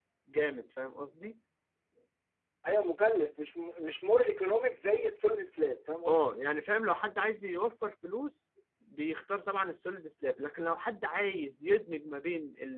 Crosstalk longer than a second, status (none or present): none